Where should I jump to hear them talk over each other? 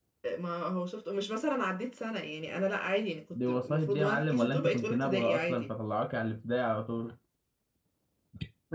3 s

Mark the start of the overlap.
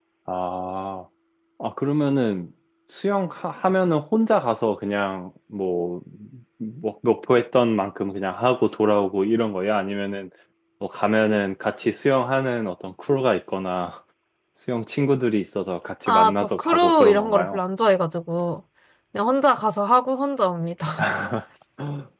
16 s

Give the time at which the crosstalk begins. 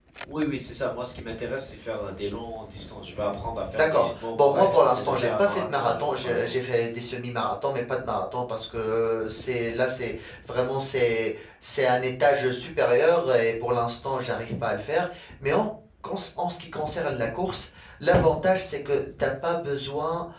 4 s

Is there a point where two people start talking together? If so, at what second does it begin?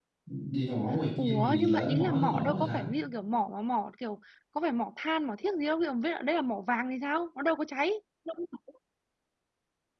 1 s

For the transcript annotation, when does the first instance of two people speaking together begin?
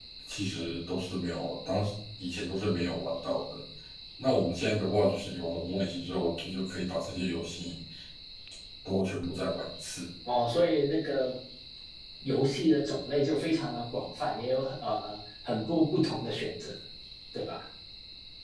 none

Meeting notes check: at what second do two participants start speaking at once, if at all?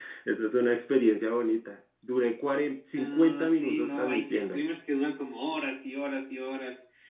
3 s

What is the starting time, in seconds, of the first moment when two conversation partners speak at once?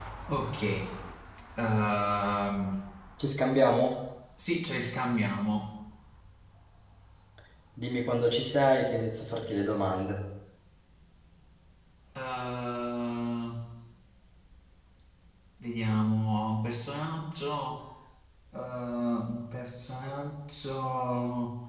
none

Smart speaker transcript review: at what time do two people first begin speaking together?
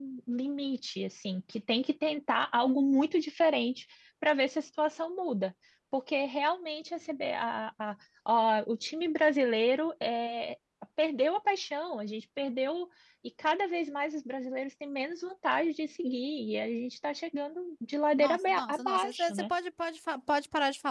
18 s

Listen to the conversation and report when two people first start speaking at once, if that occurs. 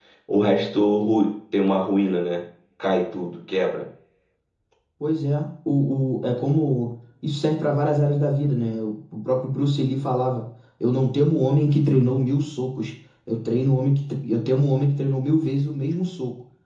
none

